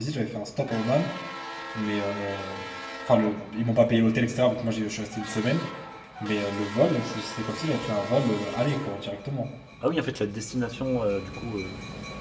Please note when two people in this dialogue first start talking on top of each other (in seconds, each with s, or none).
none